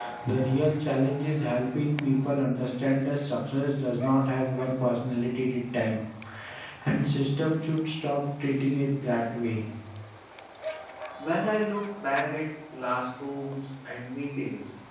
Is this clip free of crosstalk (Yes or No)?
Yes